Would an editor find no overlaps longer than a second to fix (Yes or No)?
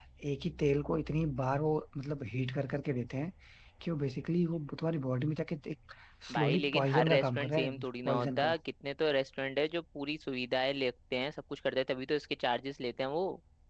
No